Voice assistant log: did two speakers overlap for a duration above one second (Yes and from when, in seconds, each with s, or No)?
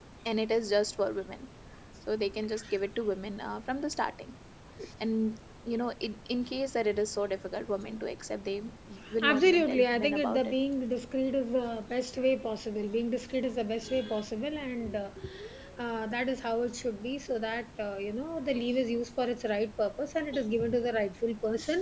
Yes, from 9.2 s